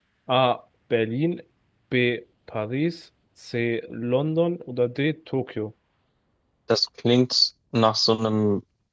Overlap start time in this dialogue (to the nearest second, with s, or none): none